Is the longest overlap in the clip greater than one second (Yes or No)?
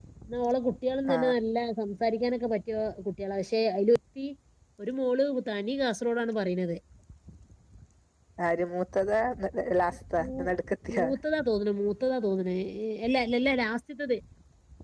No